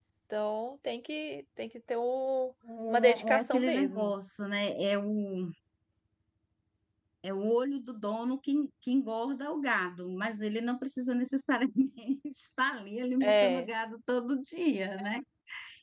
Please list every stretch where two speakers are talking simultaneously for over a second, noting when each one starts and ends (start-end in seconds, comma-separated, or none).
2.9-4.1